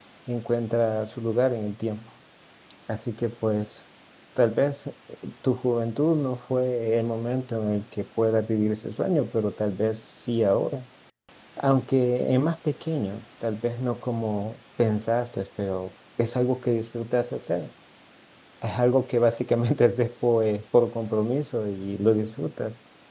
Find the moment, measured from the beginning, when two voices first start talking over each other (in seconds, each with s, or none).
none